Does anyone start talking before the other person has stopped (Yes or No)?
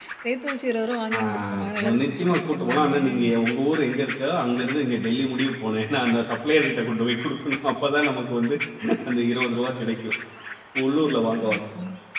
Yes